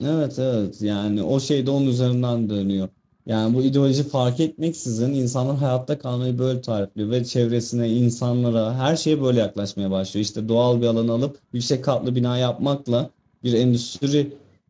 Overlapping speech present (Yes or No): No